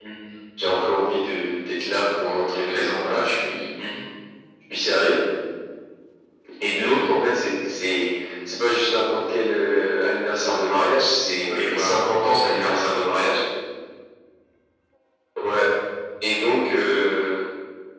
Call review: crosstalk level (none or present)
present